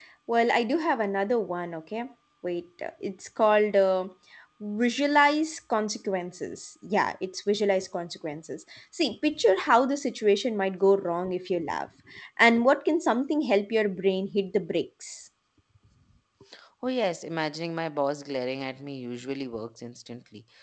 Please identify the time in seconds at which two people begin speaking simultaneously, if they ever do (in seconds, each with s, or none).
none